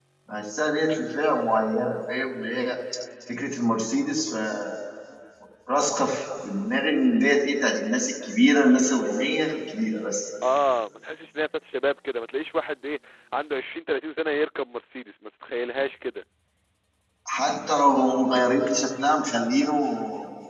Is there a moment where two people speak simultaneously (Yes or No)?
No